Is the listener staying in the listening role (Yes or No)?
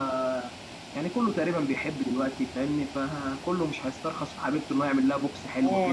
No